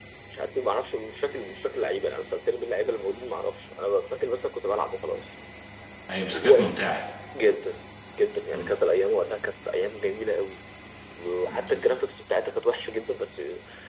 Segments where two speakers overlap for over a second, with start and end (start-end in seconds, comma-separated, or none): none